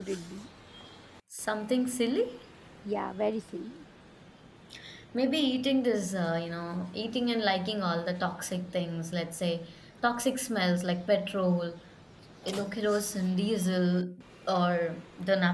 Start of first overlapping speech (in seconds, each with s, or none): none